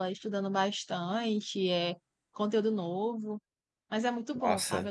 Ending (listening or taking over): listening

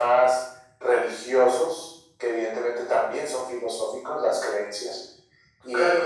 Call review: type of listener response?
taking over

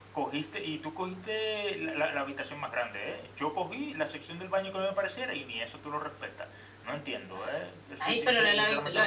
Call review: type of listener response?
taking over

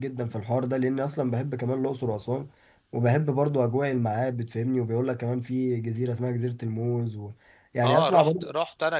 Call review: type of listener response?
taking over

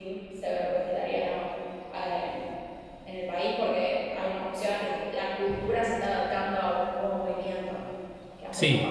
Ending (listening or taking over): taking over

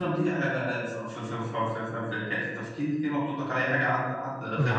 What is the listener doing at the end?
taking over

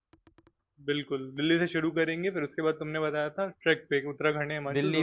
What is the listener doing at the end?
taking over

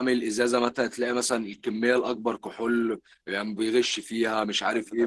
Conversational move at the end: taking over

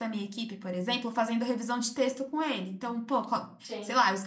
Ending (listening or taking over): listening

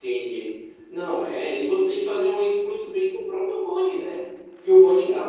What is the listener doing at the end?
listening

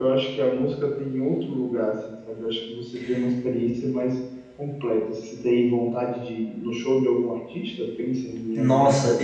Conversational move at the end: taking over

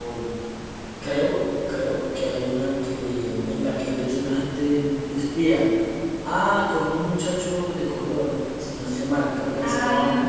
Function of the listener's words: taking over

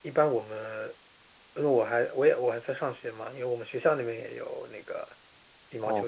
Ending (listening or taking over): taking over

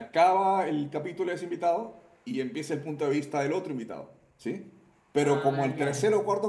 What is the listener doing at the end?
listening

